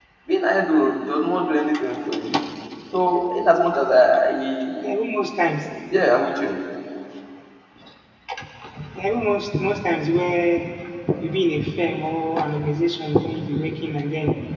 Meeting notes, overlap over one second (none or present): none